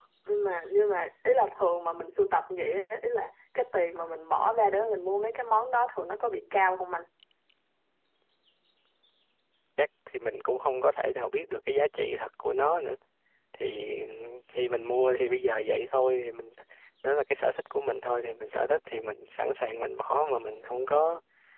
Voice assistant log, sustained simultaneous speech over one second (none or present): none